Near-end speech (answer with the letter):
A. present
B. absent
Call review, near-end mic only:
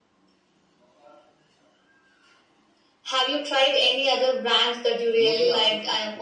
A